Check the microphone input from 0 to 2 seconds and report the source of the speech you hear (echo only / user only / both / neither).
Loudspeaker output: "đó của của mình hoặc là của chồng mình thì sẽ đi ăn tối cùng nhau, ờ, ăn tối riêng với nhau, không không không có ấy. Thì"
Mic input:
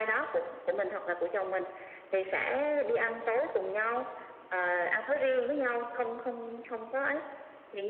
echo only